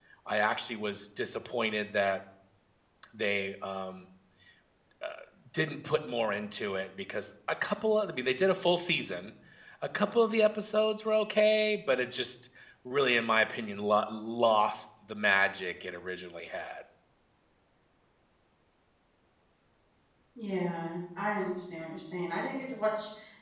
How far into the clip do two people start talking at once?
none

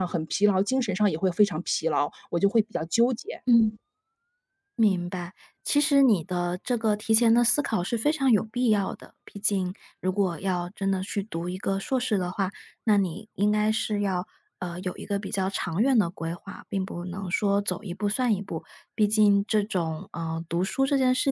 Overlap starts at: none

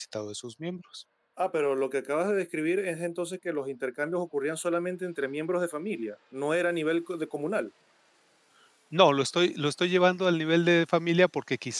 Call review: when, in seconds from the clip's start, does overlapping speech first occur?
none

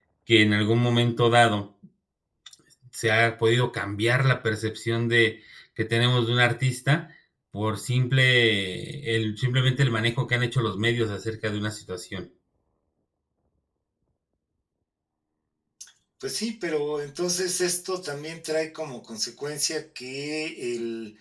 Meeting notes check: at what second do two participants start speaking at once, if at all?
none

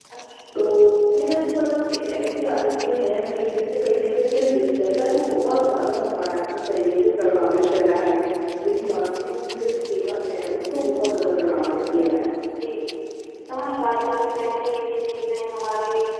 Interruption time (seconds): none

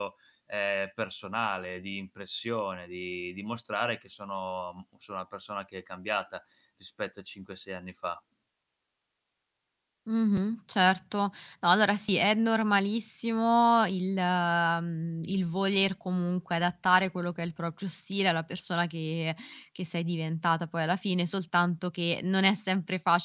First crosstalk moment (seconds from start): none

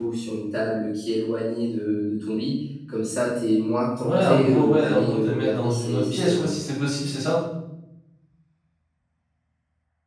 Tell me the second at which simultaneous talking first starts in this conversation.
4.0 s

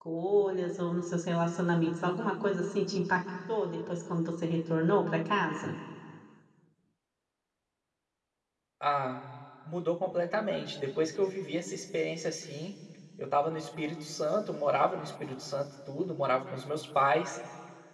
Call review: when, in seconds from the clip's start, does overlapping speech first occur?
none

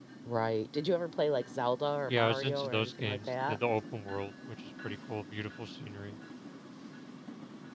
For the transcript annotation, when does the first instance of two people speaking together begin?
2.1 s

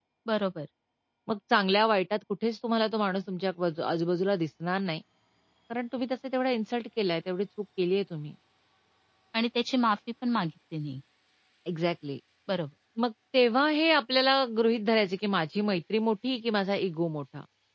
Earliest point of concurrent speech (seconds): none

